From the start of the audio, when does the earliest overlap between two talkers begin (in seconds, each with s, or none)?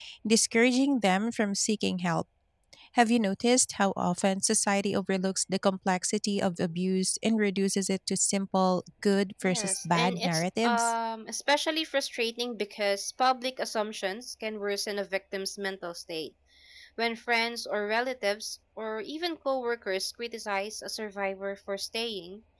9.4 s